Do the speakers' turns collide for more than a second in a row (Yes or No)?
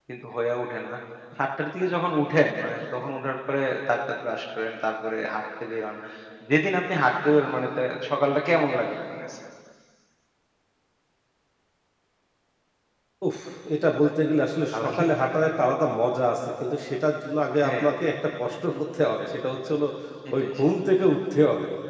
No